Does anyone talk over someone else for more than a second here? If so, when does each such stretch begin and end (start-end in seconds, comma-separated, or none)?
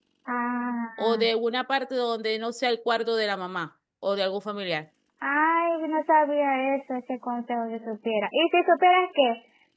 none